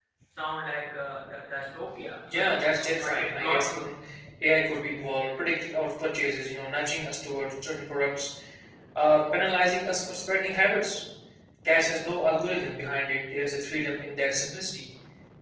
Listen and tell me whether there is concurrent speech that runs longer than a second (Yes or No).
Yes